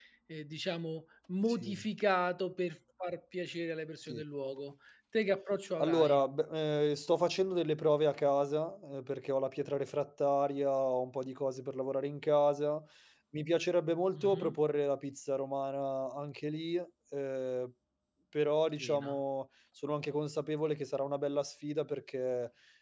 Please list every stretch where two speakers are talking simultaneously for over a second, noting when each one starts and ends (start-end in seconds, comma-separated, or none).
none